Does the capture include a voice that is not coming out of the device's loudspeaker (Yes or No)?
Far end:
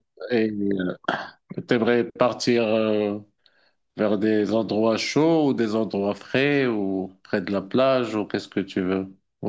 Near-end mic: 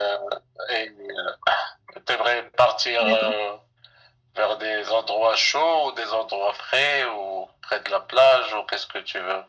Yes